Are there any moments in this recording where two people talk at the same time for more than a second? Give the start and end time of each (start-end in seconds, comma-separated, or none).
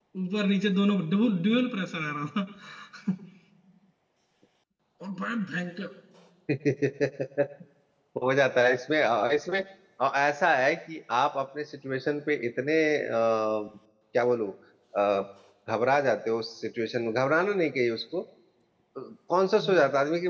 none